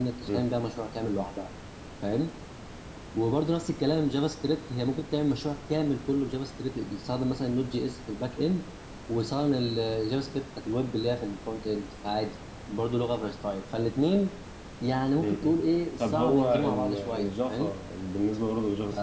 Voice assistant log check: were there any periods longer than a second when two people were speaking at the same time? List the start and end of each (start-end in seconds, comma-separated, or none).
16.0-17.7